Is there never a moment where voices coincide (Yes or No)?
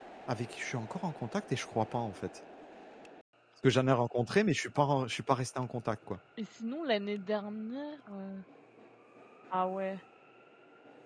Yes